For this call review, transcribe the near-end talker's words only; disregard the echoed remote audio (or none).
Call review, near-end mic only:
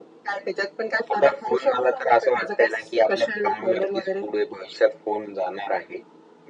none